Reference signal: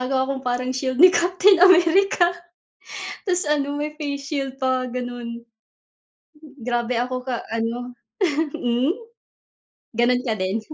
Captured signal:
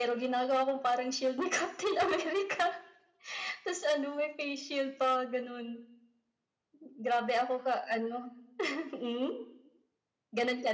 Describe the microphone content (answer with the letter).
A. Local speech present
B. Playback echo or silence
B